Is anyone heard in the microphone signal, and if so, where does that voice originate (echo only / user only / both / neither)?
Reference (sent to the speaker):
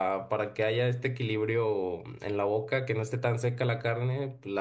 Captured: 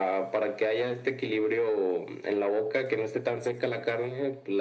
echo only